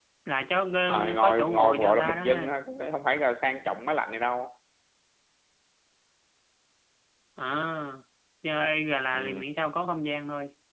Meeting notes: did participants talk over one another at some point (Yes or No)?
Yes